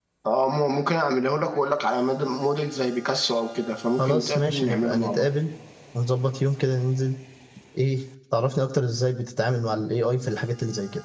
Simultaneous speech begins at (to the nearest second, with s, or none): 4 s